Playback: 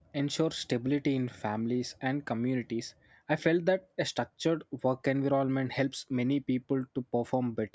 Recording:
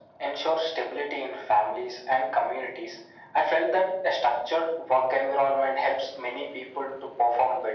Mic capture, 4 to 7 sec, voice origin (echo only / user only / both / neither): echo only